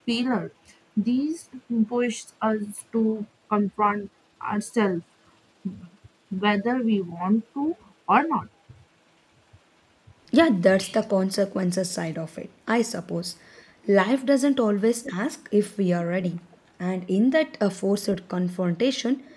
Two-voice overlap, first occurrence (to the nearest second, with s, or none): none